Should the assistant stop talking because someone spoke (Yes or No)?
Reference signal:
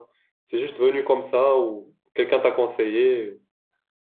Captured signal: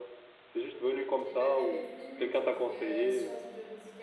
Yes